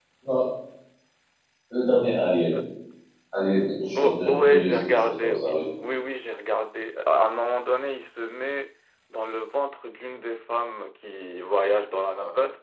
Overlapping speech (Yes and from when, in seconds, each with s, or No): Yes, from 4.0 s